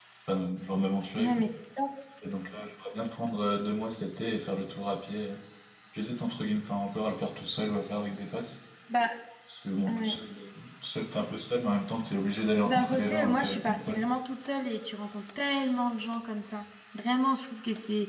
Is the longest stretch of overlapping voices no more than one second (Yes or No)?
No